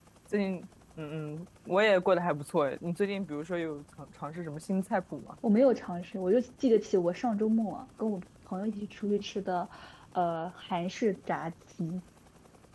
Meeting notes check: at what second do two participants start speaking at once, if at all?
none

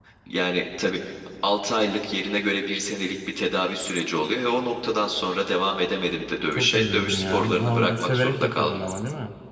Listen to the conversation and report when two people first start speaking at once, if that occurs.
7 s

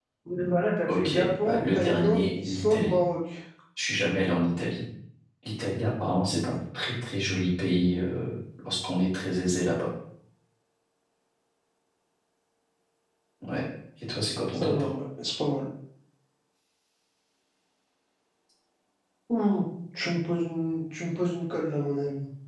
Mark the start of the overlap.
1 s

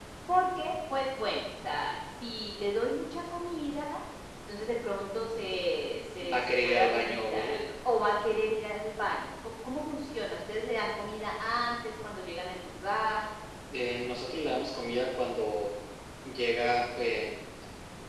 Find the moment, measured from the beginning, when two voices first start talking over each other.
6 s

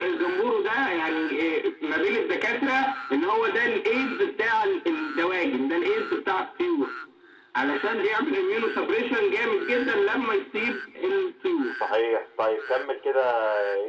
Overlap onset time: none

